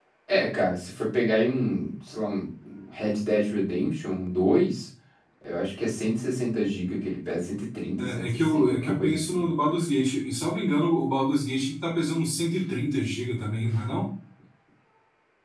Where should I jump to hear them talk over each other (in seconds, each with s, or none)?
8.0 s